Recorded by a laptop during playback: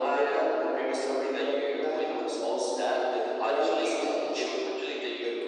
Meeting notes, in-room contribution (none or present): none